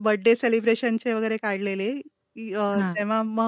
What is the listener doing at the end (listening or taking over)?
listening